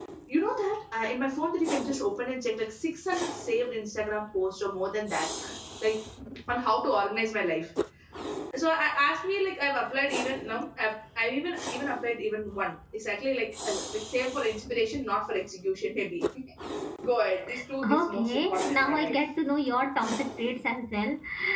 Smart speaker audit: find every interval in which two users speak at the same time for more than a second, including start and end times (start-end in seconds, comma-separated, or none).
17.9-19.1